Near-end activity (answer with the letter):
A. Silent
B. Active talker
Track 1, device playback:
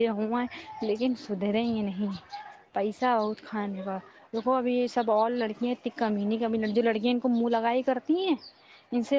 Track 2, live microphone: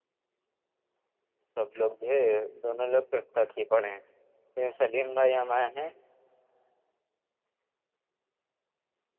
B